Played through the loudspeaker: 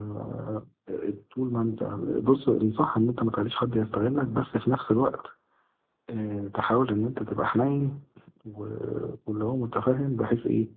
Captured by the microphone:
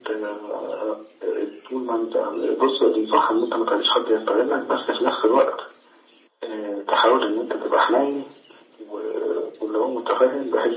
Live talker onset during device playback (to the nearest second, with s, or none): none